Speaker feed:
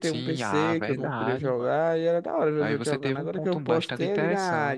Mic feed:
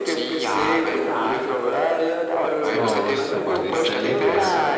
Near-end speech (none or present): present